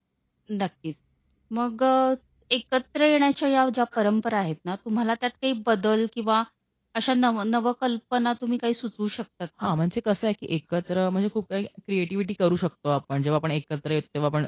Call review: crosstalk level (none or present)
none